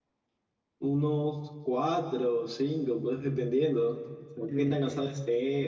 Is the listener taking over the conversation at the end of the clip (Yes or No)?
No